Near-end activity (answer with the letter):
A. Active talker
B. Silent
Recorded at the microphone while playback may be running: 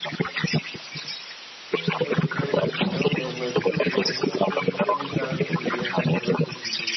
A